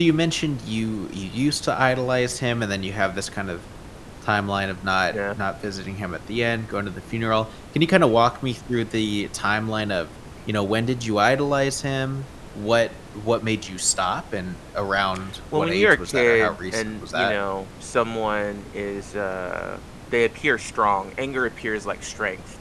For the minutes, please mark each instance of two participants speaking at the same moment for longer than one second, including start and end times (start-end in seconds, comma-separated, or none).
15.6-17.4